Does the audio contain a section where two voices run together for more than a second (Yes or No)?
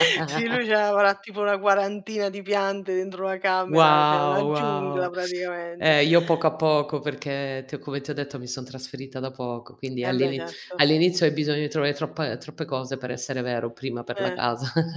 Yes